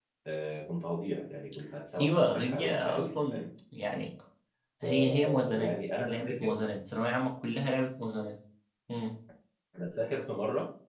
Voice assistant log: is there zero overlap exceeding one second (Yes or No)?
No